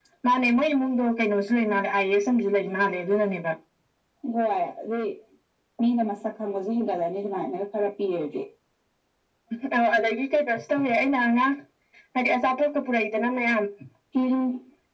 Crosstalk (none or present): none